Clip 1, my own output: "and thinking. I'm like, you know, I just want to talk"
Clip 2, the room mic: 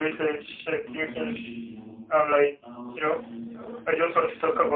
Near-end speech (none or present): present